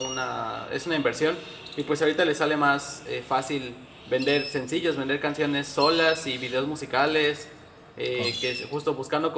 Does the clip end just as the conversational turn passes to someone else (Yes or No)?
No